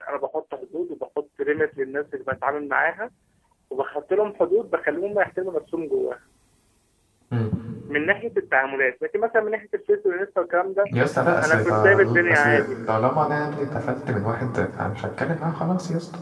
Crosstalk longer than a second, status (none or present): present